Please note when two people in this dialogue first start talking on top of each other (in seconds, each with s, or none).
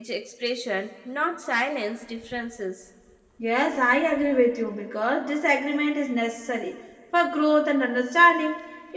none